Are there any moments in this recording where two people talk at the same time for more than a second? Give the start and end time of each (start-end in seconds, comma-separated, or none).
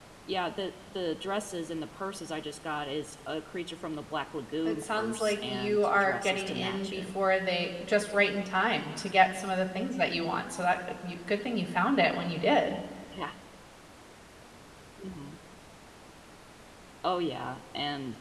4.6-7.1